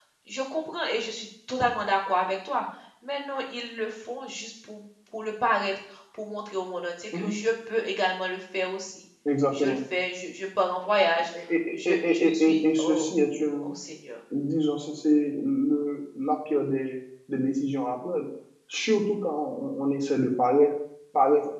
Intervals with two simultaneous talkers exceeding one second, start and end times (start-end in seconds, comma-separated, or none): 11.7-13.1